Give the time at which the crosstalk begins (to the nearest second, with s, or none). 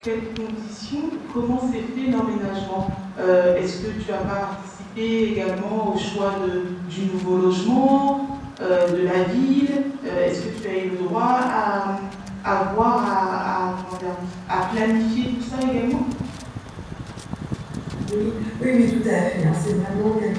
none